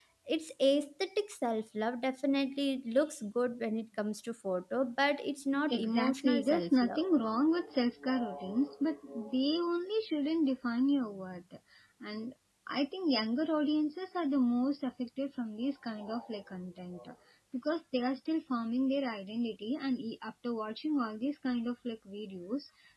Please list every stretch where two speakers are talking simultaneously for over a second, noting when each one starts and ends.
5.7-7.0

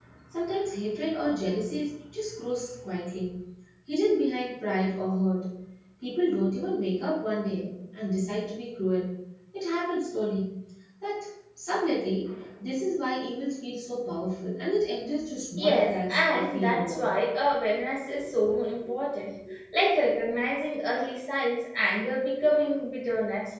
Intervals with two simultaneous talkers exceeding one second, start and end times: 15.6-17.0

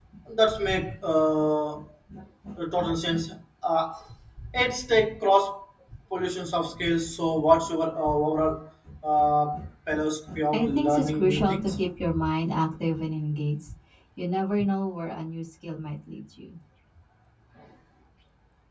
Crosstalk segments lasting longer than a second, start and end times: 10.5-11.8

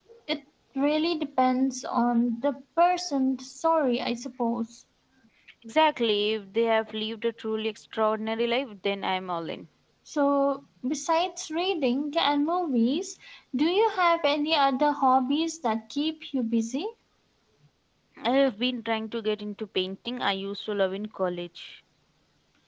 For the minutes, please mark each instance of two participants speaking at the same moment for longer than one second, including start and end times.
none

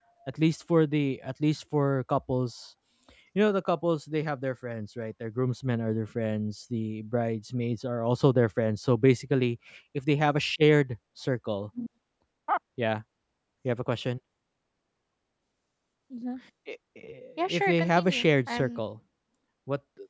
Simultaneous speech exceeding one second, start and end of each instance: 17.5-18.8

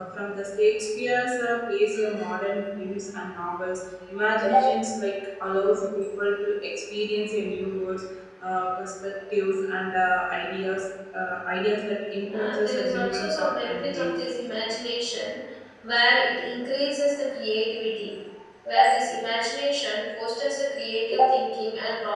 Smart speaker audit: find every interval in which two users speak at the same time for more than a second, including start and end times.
12.3-14.3

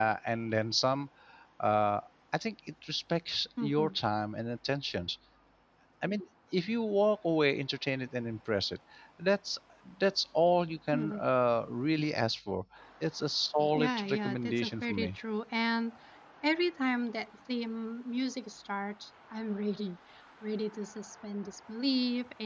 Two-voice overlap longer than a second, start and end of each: 13.7-15.2

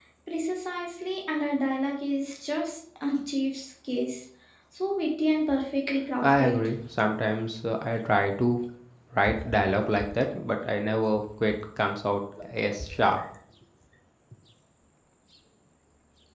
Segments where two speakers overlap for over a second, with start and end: none

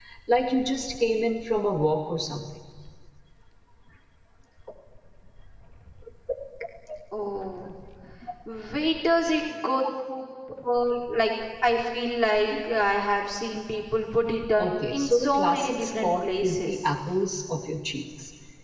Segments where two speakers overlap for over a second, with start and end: 14.6-16.9

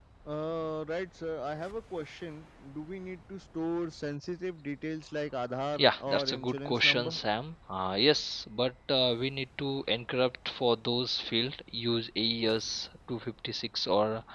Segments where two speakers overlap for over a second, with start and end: 5.8-7.2

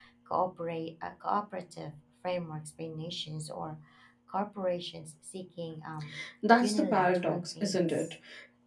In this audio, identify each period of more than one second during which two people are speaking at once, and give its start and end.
6.6-8.0

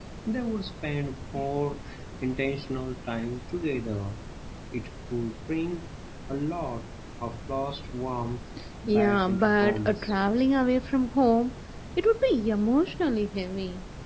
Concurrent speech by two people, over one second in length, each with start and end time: 8.9-10.1

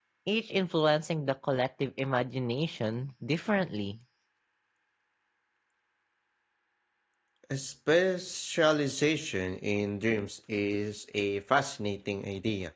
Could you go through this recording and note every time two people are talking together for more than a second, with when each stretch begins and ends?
none

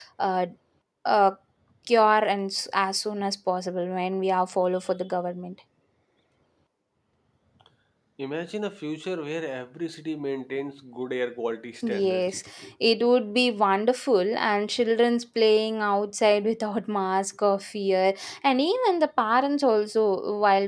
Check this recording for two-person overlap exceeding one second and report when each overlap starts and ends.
none

